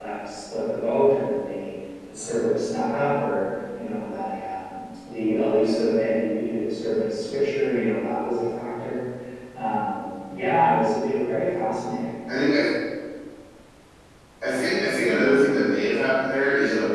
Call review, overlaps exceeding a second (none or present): none